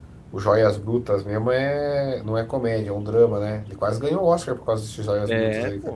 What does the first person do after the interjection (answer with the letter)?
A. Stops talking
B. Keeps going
A